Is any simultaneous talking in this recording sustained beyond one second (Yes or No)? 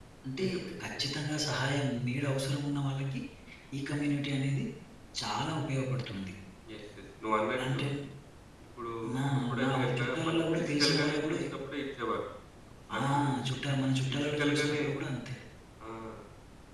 Yes